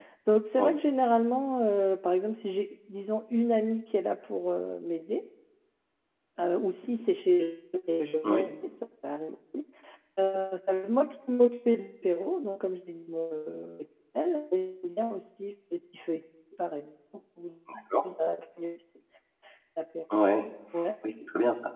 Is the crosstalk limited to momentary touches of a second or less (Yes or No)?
Yes